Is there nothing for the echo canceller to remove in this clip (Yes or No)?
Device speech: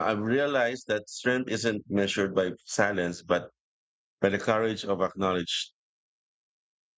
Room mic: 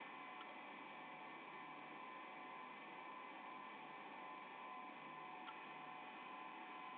Yes